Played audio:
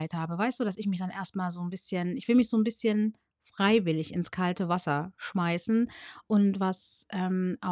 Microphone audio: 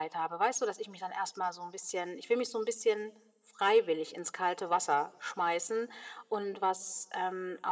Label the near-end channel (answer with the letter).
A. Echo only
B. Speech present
A